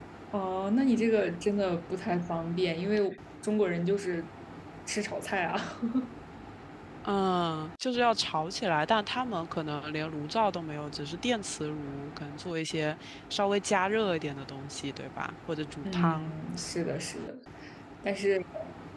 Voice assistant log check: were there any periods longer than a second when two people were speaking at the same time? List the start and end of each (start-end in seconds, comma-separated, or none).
none